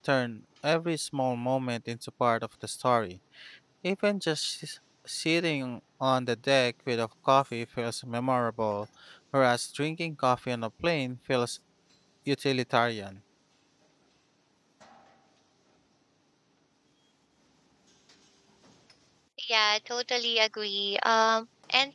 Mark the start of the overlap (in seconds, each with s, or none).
none